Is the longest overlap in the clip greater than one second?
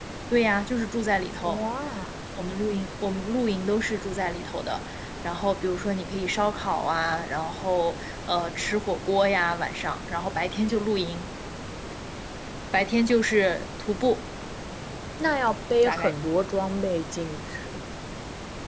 No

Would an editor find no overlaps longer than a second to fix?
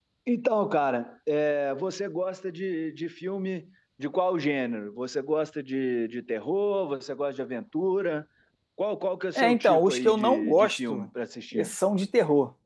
No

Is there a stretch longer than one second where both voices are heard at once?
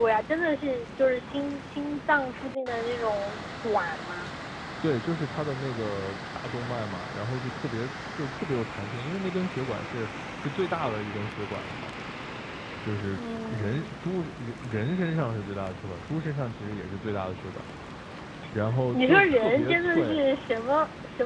Yes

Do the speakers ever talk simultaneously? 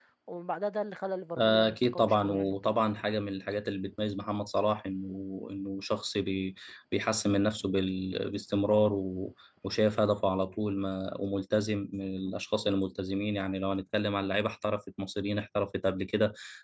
Yes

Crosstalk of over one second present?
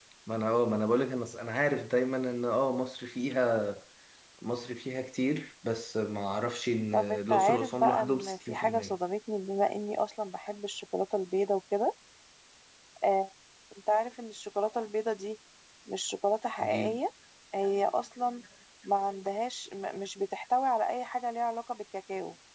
Yes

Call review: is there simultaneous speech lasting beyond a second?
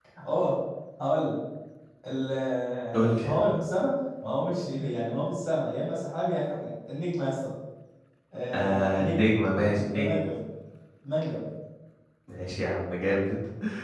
Yes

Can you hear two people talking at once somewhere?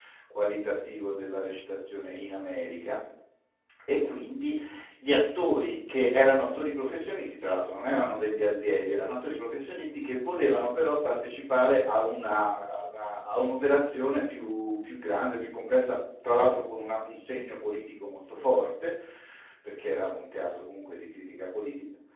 No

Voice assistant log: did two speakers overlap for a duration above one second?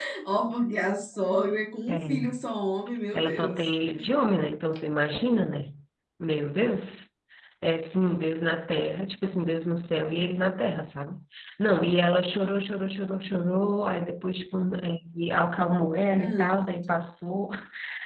No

